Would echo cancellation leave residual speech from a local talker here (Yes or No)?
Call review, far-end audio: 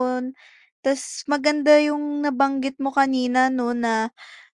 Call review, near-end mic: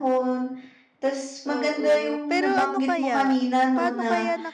Yes